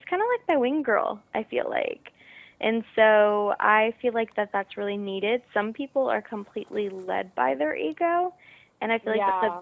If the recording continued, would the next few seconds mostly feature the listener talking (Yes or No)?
No